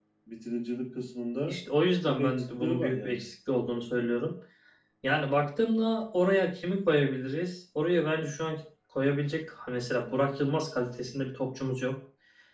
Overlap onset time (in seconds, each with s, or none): 2.0 s